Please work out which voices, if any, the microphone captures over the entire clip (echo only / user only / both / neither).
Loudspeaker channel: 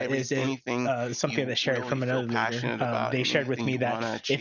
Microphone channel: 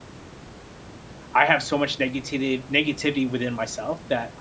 user only